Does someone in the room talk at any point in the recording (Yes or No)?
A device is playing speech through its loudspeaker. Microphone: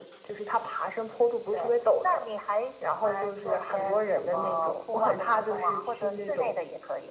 No